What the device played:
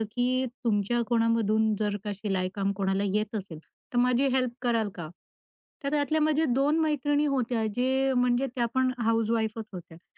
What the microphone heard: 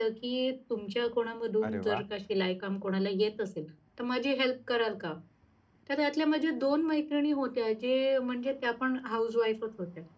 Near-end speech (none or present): present